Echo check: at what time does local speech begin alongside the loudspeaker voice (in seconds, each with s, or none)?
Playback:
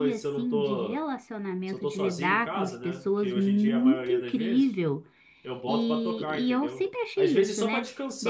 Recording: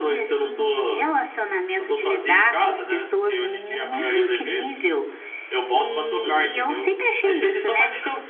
none